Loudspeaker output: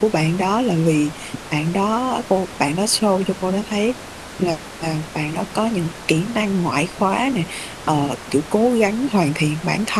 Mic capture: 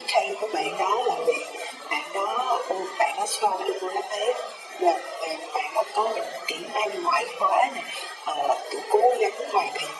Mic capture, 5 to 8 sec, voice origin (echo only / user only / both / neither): echo only